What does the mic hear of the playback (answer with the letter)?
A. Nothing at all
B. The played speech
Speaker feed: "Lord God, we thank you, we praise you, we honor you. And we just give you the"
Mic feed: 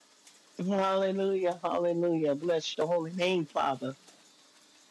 A